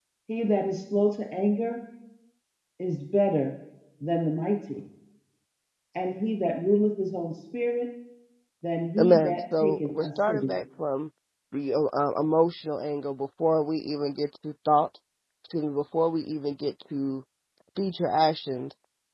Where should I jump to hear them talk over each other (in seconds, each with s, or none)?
9.0 s